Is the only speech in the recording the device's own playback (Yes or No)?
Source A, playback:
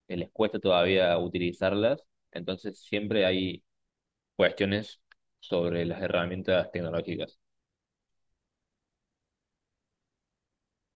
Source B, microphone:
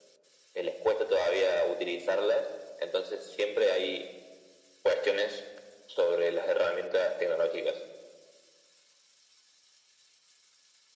Yes